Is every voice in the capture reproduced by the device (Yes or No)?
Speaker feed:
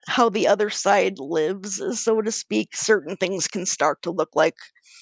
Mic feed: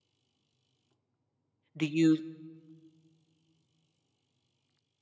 No